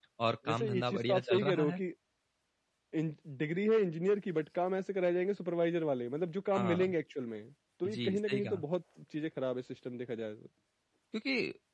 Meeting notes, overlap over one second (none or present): present